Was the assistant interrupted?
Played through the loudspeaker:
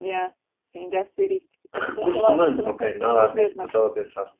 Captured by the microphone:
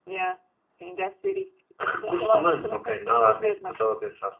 No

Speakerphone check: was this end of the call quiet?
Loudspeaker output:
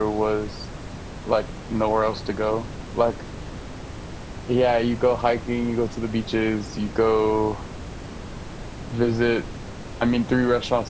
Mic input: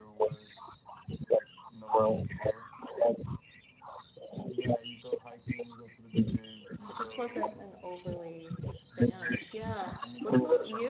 No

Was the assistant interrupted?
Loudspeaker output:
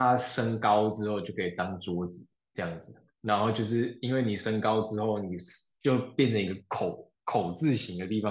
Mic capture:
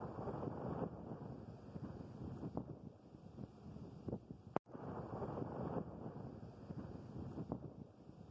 No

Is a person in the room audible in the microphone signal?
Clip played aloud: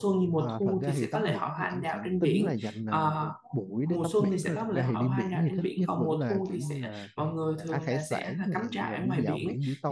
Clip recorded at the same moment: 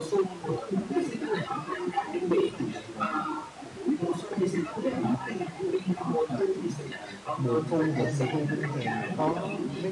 Yes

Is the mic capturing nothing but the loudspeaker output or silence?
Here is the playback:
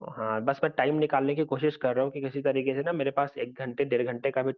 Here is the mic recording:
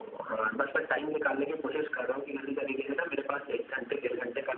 Yes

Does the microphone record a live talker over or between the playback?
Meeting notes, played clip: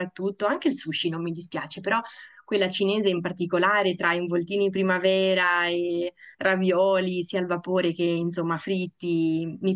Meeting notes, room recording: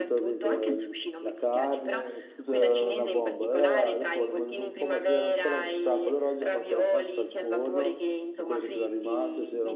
Yes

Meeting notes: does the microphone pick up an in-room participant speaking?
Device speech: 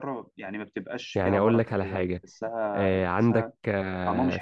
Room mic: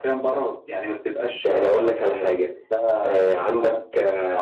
No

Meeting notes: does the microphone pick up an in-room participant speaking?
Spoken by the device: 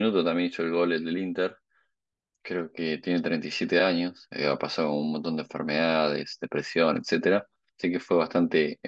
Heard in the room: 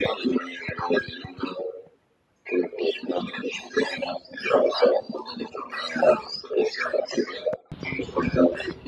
No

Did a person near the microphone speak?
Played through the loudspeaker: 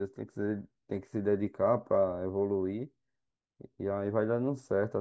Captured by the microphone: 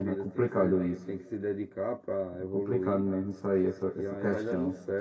Yes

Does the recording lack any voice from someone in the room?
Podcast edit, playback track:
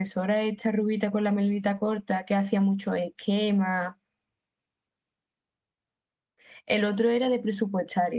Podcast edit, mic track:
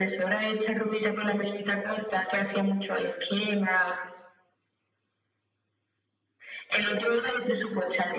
Yes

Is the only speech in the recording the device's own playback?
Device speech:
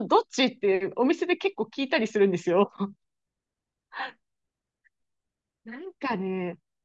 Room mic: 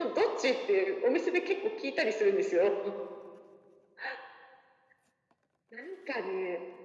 Yes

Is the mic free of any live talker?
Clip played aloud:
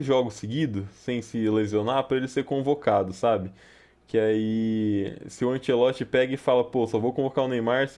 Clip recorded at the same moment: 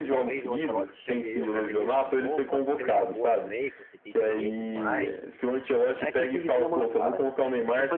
No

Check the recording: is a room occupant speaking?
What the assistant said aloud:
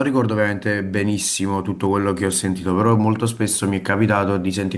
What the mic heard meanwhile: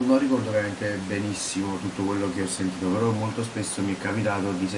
No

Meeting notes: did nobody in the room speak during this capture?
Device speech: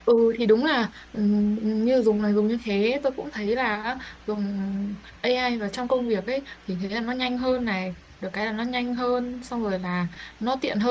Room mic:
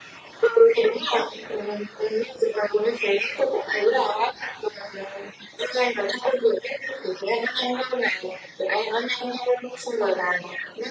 Yes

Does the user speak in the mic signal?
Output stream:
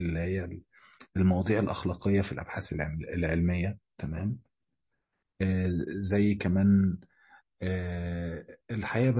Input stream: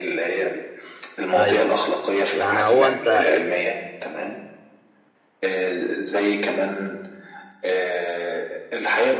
Yes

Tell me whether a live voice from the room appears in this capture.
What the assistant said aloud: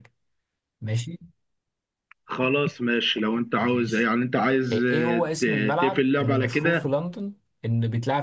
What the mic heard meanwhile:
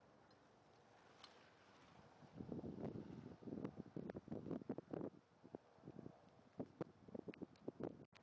No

